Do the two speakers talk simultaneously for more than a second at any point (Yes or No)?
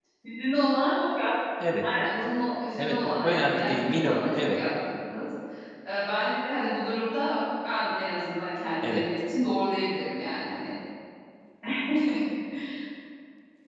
Yes